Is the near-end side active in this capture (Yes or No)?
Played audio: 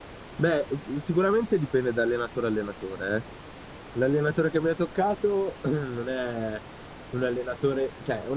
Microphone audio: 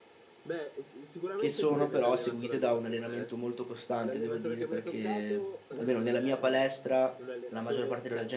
Yes